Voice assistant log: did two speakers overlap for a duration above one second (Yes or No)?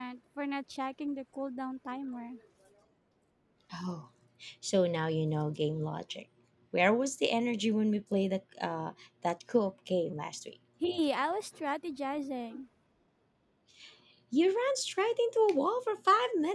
No